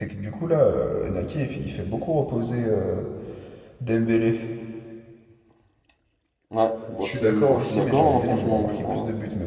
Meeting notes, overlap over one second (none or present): present